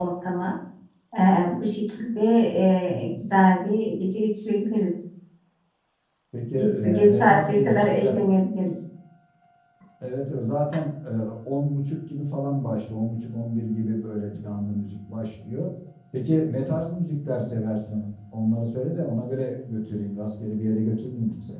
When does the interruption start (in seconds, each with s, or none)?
6.6 s